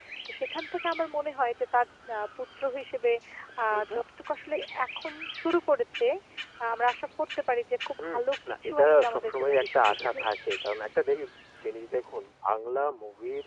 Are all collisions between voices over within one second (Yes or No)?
No